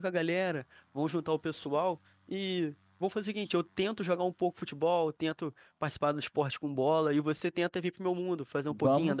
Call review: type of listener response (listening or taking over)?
taking over